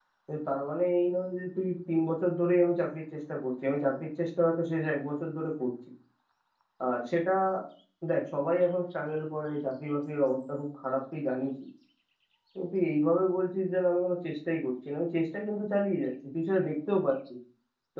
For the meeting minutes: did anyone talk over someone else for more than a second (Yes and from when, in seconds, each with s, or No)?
No